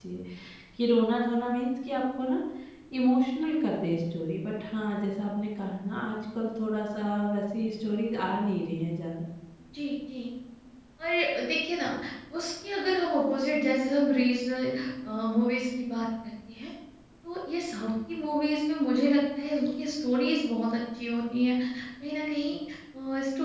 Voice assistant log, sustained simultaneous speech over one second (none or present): none